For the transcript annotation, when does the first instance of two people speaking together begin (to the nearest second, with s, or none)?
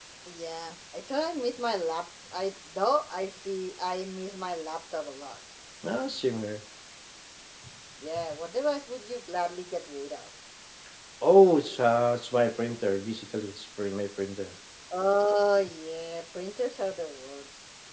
none